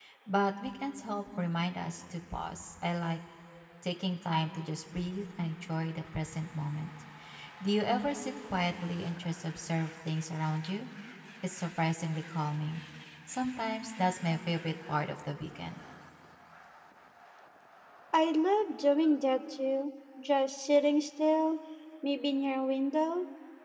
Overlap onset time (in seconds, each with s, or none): none